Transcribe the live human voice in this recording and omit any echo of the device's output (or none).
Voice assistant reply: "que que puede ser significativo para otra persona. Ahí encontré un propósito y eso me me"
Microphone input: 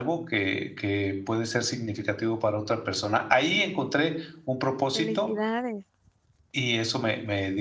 Felicidades.